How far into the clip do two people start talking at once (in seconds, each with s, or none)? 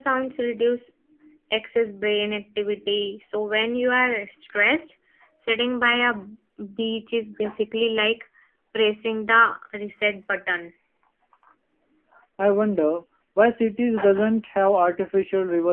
none